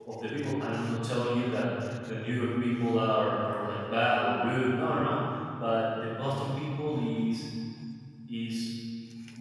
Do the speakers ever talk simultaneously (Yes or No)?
No